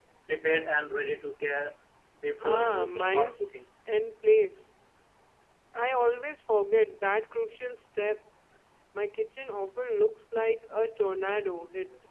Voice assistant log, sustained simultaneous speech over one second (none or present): present